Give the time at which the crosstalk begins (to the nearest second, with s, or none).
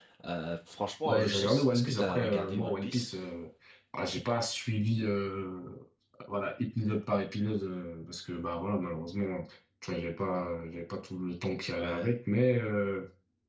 1 s